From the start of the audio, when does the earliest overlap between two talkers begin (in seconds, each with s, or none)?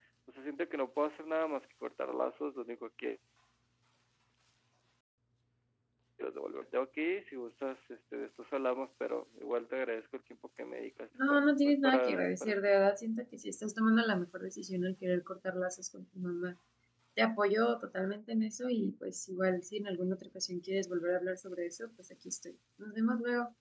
11.2 s